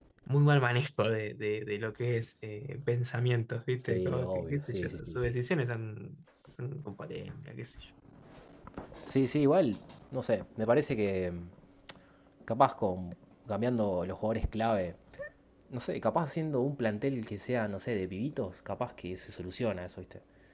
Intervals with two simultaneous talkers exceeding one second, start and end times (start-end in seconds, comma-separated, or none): 3.8-5.4